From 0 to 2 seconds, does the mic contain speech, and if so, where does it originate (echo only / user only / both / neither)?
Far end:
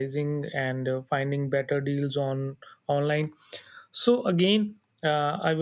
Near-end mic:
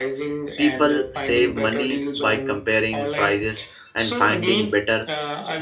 both